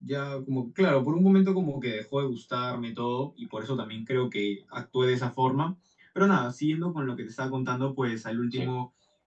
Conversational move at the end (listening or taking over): listening